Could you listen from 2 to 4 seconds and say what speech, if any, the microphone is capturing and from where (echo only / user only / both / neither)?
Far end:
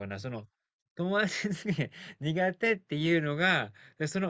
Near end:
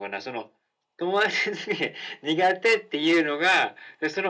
echo only